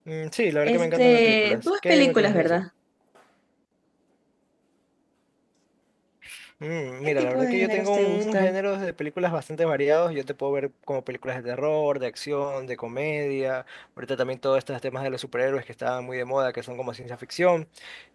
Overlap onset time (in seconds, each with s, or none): 0.6 s